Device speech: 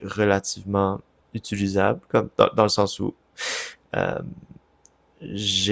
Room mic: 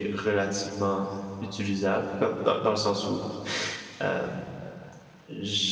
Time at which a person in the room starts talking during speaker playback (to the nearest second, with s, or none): none